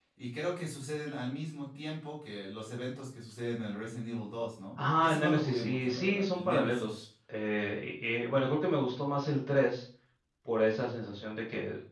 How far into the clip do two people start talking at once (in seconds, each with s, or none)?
4.8 s